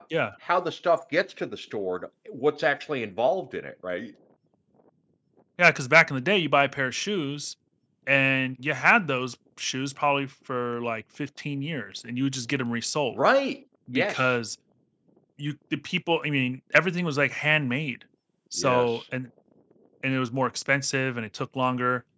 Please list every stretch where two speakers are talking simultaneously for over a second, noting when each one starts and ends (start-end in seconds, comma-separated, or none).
none